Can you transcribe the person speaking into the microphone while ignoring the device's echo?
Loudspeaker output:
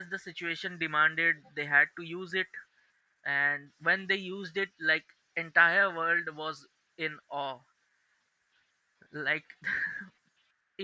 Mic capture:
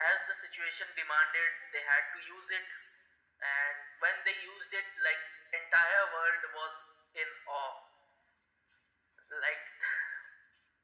none

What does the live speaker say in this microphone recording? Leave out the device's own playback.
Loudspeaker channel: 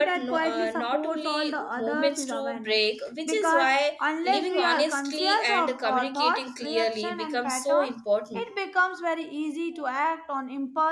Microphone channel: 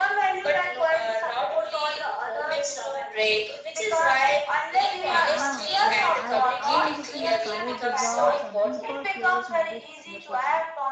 Yeah, you're right. I also feel courage deserves a deeper place in this conversation.

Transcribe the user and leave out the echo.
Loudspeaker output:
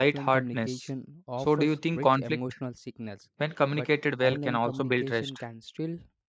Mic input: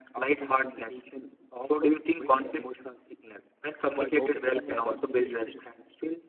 While opening up about fears,

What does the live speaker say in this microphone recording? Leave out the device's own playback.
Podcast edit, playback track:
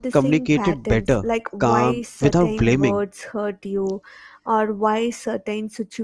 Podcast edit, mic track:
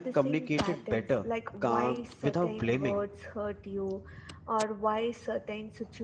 none

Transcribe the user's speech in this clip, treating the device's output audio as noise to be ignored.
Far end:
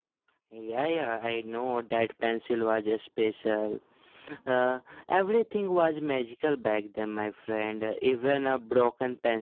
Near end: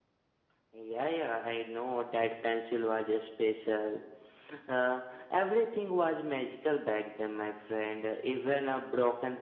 none

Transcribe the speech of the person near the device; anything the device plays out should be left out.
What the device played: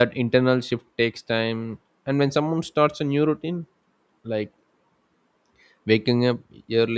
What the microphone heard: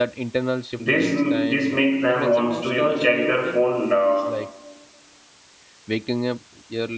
this this makes them wants to you know check their phone uh,

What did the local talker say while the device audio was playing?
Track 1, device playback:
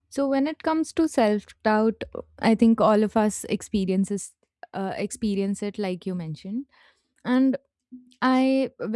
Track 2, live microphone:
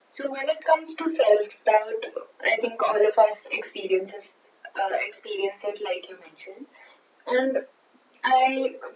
none

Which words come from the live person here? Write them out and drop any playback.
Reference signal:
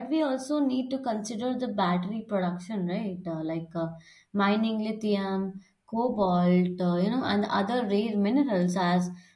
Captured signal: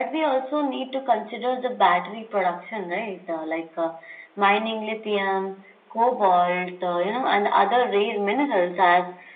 none

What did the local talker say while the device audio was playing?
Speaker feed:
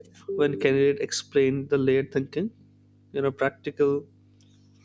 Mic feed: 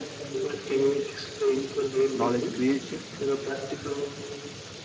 knowledge creation.

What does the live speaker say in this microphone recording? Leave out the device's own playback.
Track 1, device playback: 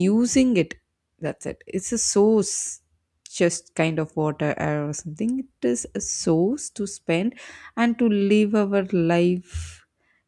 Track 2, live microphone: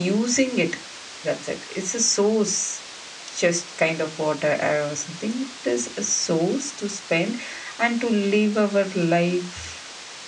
none

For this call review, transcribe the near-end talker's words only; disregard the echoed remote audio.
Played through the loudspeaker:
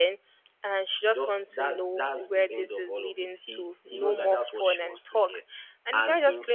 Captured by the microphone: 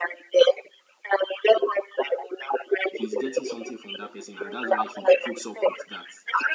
He's getting something from that person, and that's why he puts up with that.

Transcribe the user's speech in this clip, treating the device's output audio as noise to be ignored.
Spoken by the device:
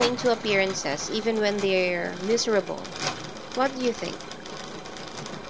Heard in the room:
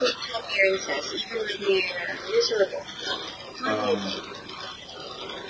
Um,

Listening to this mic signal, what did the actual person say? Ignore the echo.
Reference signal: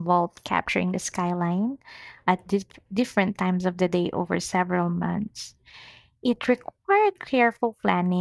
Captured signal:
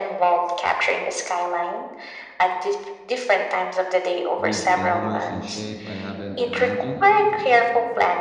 with colors and shape I haven't imagined.

